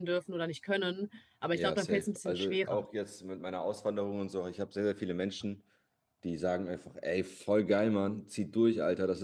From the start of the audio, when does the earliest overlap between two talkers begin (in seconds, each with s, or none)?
1.5 s